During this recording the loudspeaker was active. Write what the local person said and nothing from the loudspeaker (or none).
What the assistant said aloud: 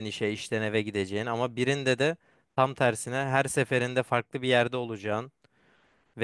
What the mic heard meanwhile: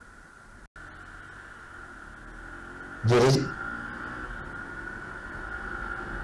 Gelecek